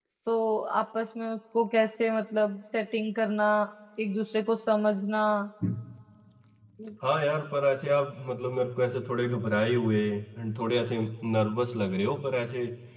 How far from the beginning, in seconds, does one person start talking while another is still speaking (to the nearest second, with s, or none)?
none